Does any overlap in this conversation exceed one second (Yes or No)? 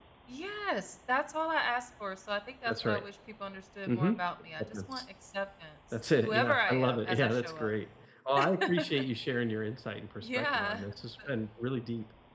Yes